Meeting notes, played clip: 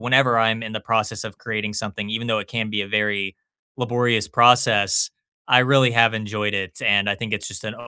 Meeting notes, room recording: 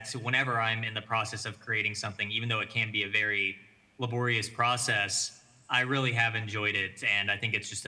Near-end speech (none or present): none